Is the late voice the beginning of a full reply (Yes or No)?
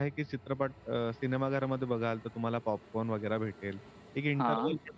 No